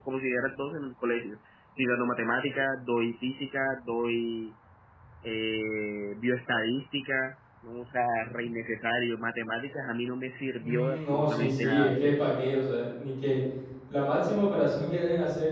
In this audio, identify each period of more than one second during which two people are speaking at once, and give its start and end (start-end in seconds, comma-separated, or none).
10.6-12.0